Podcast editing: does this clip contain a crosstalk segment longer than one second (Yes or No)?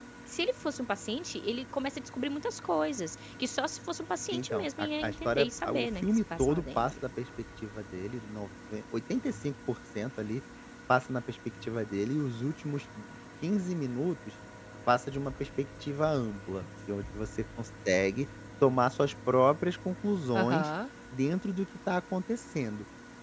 Yes